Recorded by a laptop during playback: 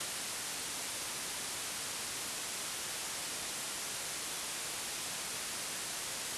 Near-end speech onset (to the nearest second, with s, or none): none